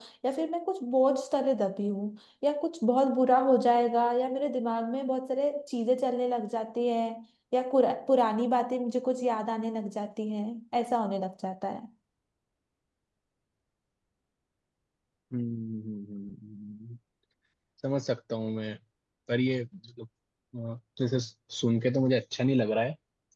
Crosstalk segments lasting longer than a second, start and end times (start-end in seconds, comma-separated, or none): none